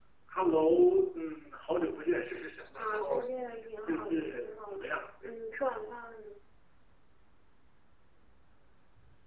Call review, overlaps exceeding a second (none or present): present